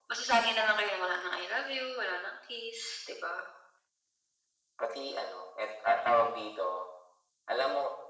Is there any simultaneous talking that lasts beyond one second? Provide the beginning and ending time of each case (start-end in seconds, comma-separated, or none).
none